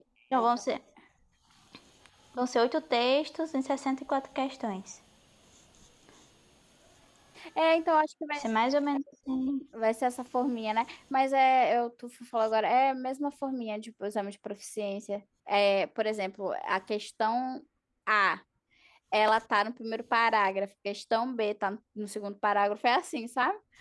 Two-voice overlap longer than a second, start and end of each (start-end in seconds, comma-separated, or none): none